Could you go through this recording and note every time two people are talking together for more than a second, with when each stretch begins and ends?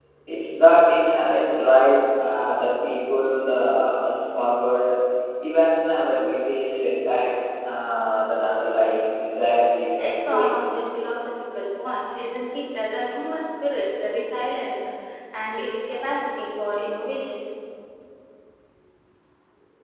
none

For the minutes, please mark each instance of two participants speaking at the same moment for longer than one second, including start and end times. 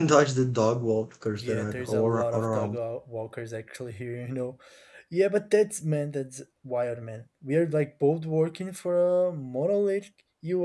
1.3-2.8

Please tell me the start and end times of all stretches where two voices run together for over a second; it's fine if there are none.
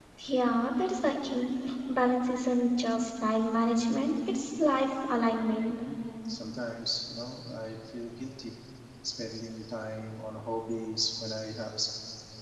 none

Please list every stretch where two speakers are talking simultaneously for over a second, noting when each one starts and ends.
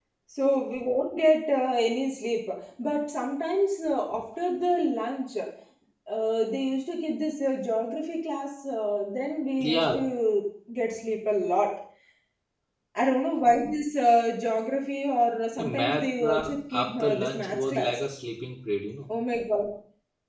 15.6-17.9

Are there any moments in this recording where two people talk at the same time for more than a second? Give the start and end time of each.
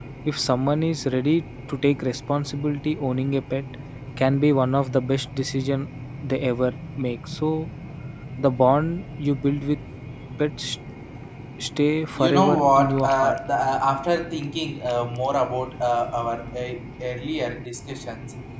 12.2-13.4

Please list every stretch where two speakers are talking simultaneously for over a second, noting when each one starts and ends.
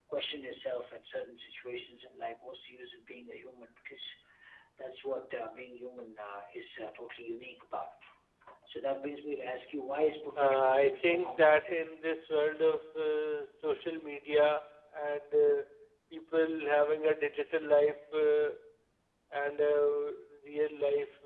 10.4-11.8

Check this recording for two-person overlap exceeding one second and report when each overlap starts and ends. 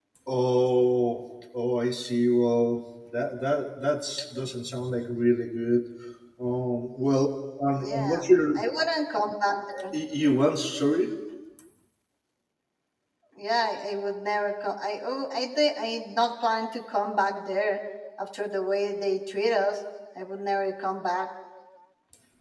none

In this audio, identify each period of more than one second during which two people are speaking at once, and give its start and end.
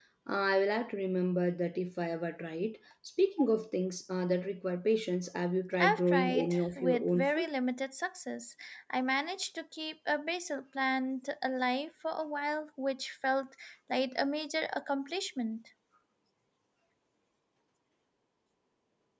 5.8-7.5

